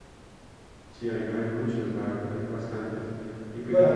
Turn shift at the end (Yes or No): Yes